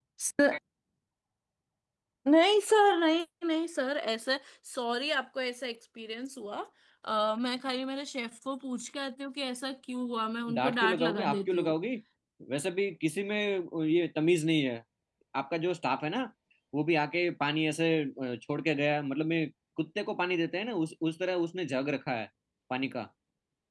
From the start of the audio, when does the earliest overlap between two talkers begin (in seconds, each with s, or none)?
10.5 s